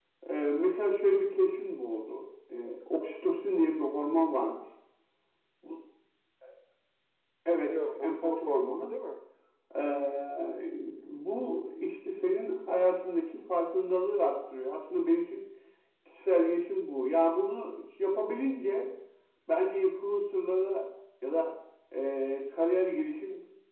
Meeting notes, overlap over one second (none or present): present